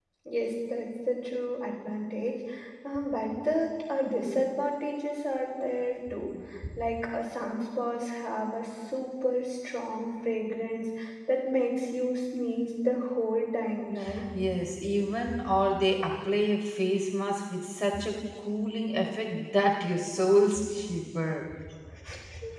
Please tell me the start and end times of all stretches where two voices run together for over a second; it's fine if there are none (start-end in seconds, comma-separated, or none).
none